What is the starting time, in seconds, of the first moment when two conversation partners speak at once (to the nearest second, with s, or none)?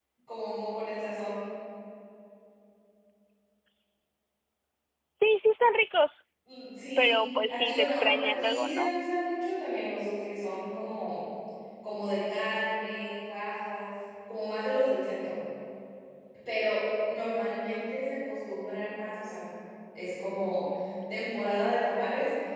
7 s